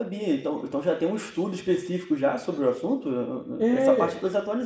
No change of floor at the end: No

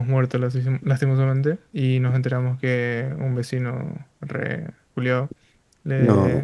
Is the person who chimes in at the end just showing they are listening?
Yes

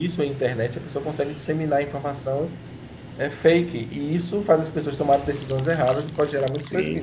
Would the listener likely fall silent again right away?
No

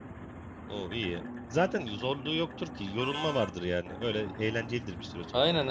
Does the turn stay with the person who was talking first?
No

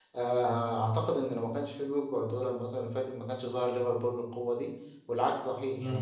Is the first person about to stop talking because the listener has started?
Yes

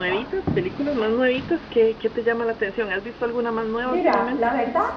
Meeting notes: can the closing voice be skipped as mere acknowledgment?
No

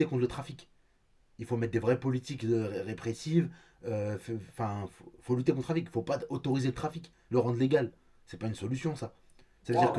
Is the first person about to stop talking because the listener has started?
No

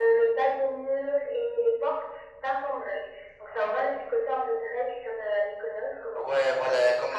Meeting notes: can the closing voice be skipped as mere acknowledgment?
No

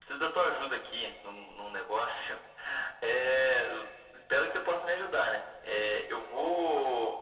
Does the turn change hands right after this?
No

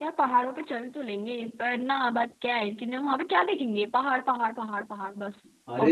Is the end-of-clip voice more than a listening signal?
Yes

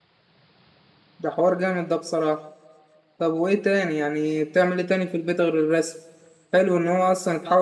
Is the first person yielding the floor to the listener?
No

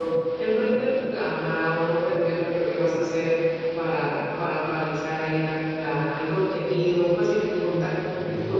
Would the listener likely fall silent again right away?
Yes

